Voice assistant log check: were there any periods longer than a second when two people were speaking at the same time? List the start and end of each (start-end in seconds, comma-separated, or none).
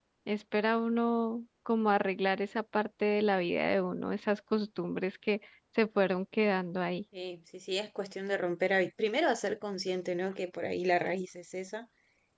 none